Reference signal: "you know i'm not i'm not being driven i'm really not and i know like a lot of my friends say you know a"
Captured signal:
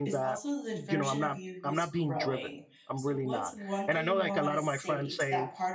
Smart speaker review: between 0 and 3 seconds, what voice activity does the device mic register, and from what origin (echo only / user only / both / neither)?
both